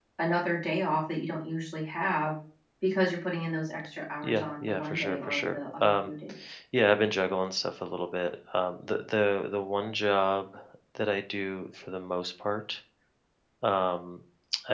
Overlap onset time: 4.2 s

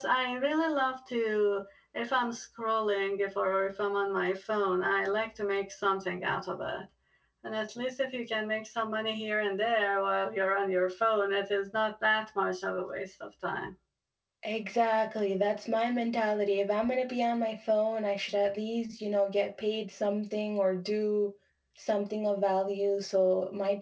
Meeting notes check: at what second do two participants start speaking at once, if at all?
none

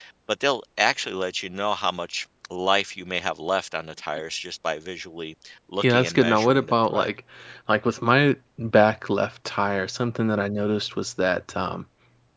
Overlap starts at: 5.8 s

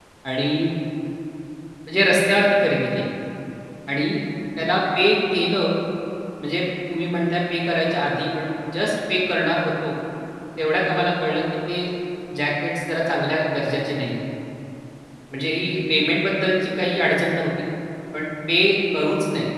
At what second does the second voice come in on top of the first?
none

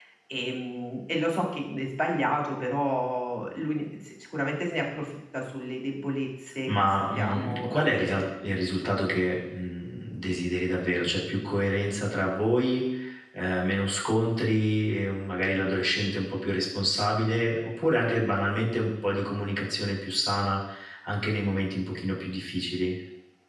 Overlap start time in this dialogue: 6.7 s

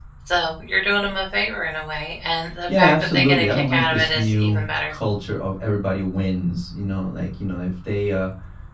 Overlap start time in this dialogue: 2.7 s

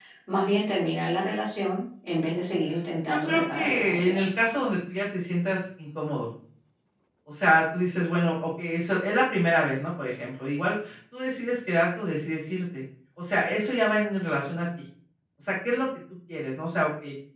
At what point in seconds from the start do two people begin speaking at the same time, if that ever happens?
3.1 s

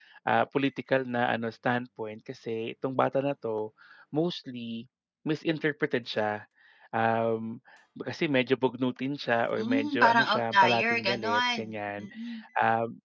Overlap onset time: 9.6 s

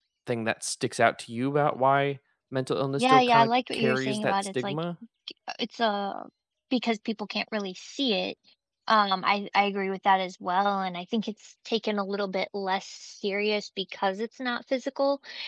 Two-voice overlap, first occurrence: 3.0 s

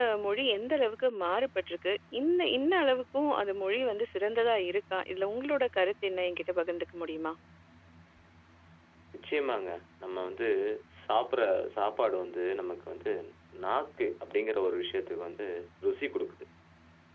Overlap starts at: none

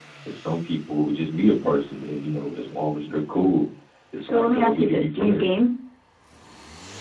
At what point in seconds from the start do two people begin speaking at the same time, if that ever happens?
4.2 s

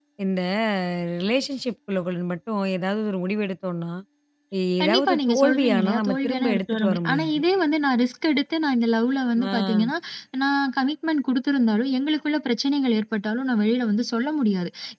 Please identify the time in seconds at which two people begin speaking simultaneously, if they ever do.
4.8 s

